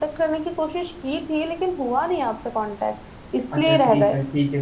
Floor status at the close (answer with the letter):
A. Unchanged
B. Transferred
B